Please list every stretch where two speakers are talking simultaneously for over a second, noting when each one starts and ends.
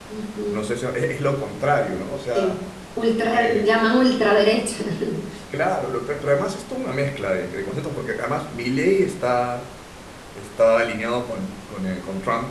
none

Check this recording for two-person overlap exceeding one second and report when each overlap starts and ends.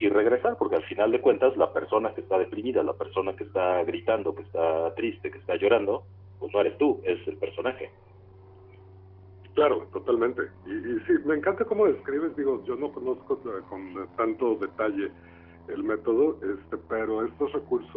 none

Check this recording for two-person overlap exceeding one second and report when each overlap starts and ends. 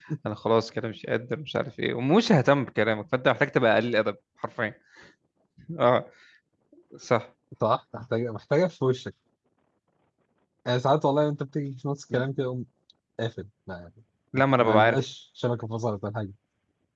none

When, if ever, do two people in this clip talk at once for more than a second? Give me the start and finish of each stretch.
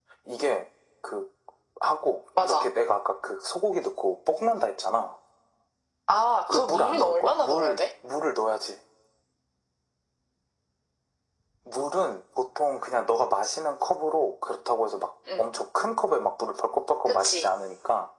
6.5-7.8

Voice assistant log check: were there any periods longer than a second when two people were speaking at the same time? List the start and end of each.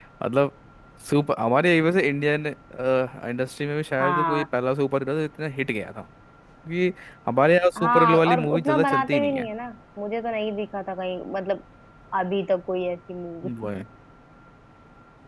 7.8-9.5

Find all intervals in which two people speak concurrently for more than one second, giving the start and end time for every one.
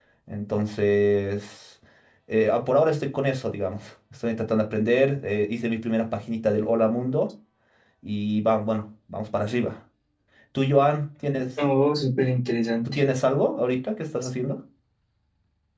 none

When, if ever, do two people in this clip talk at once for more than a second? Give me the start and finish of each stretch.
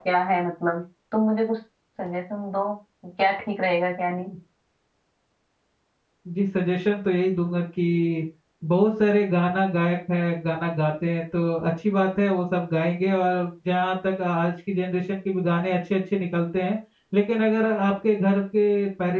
none

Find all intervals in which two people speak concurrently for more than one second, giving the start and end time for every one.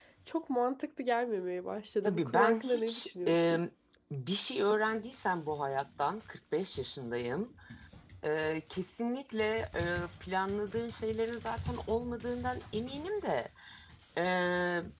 2.0-3.6

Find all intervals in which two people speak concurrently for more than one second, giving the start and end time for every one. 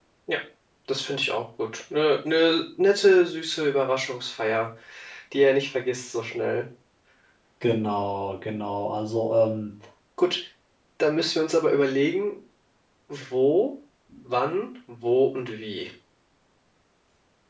none

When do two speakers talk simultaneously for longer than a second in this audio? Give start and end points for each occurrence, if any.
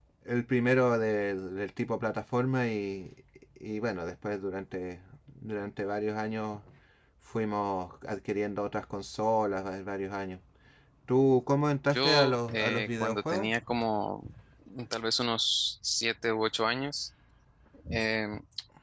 11.9-13.5

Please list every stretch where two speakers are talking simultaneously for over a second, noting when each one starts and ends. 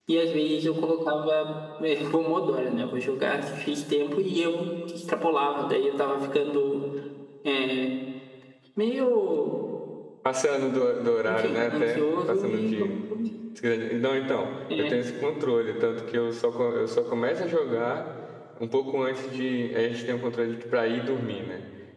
11.2-12.7

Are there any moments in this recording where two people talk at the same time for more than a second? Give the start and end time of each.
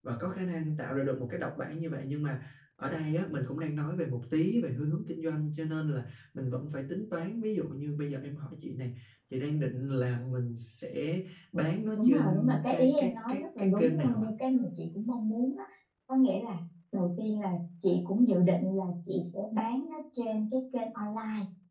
11.9-14.3

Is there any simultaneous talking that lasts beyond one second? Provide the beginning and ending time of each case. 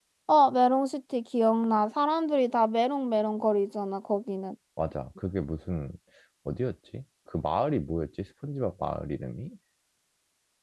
none

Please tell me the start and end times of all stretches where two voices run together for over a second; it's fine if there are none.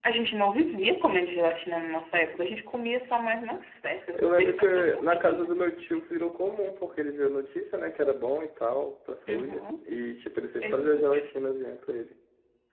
4.1-5.5

